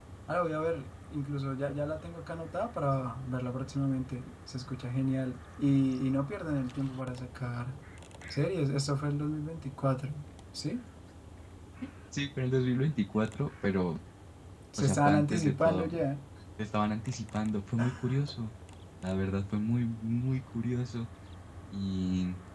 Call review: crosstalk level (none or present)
present